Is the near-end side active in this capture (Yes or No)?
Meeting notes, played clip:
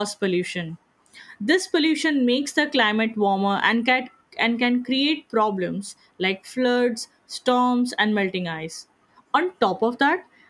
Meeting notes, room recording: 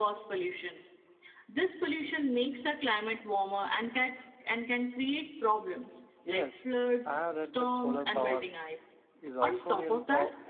Yes